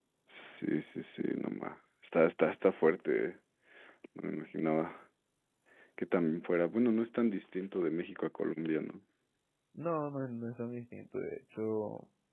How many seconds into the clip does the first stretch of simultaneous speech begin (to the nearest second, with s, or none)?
none